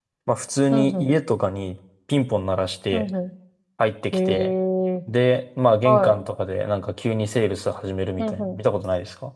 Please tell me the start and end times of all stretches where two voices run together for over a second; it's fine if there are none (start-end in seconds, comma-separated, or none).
none